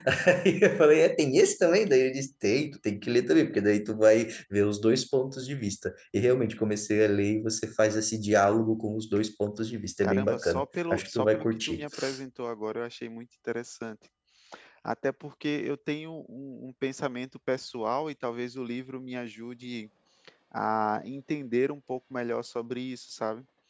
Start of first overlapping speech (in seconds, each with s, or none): 10.0 s